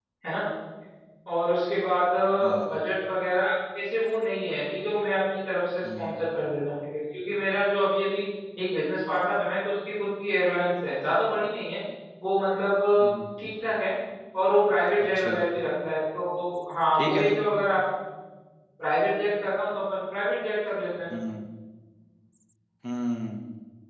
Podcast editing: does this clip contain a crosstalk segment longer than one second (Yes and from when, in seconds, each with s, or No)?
No